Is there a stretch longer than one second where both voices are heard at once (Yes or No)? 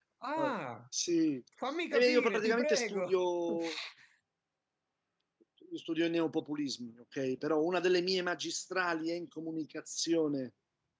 Yes